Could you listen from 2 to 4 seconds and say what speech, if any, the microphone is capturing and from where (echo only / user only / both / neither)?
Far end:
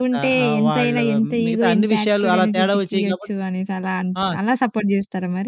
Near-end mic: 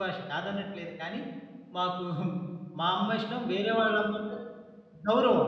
user only